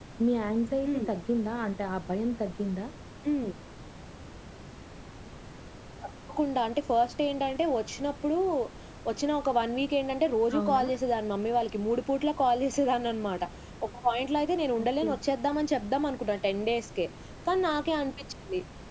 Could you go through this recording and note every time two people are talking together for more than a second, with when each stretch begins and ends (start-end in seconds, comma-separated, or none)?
none